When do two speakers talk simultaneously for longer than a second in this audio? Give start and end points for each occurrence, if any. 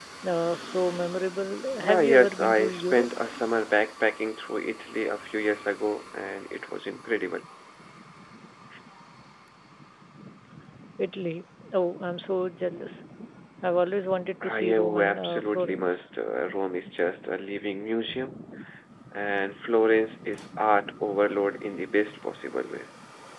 1.9-3.1, 14.4-16.1

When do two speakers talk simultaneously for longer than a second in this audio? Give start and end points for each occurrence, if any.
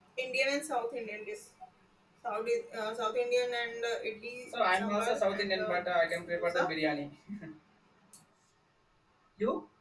4.5-5.8

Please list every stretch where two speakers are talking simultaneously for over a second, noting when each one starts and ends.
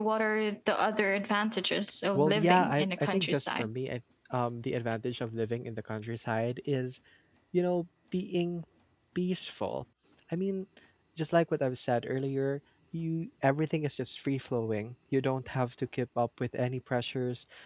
2.1-3.7

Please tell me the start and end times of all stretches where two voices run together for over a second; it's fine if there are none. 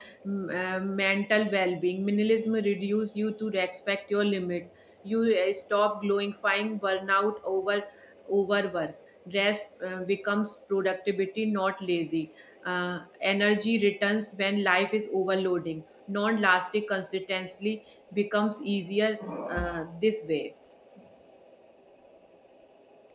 none

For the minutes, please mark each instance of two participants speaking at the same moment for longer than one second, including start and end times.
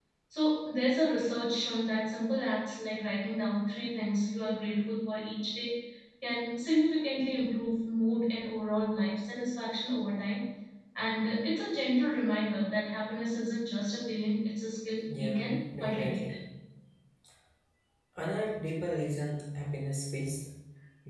15.1-16.3

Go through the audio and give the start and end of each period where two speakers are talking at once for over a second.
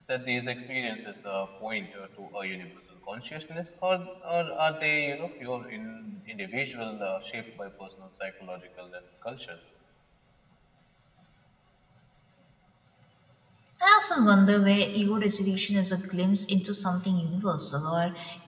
none

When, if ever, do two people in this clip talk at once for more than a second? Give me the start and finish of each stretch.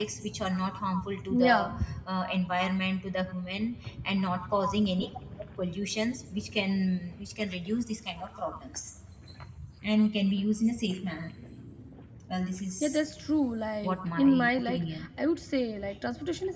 13.8-15.1

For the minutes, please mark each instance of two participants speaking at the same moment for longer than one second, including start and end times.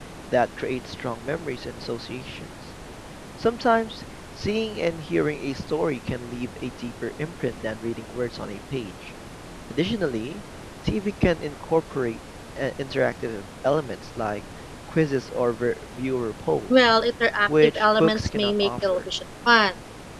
17.5-19.1

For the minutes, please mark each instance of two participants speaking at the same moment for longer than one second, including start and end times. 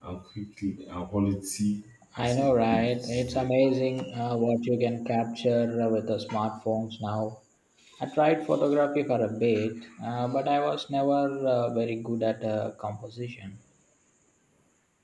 2.2-3.5

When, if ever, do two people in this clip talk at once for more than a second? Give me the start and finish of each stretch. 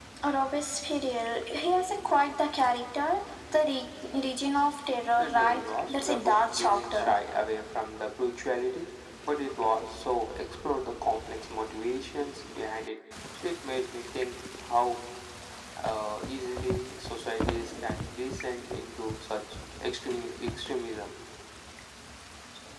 5.2-7.2

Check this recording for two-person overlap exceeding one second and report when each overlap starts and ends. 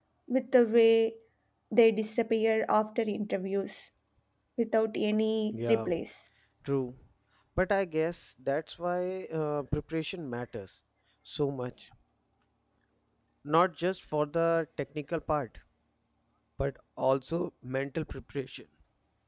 none

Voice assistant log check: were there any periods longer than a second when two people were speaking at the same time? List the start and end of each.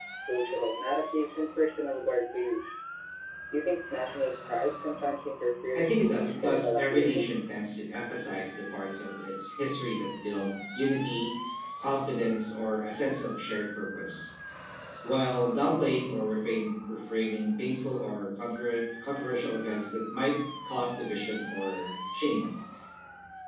5.7-7.3

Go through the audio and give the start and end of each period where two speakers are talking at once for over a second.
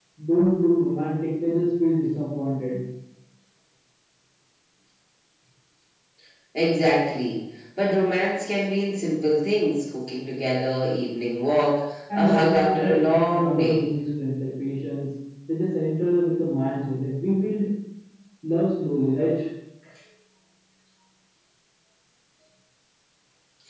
12.1-13.8

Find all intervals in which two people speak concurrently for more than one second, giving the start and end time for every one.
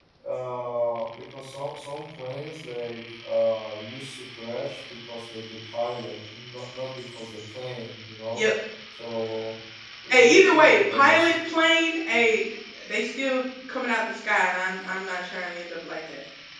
10.1-11.3

